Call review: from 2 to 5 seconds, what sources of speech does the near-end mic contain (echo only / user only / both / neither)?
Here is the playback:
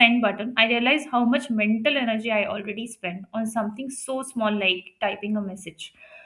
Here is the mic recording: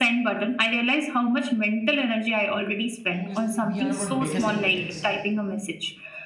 both